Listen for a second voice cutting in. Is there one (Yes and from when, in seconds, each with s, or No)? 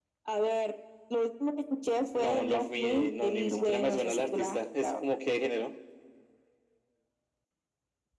Yes, from 2.1 s